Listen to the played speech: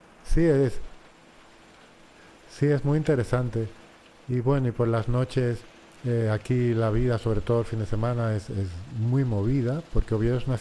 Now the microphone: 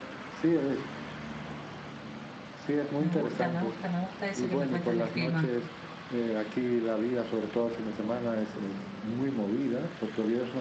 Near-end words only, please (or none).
Me gusta, me gusta, me gusta eso que me cuentas del clima.